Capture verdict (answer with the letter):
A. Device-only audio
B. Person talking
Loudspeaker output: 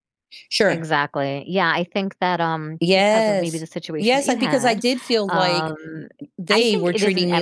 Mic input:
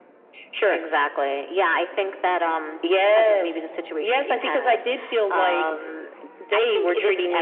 A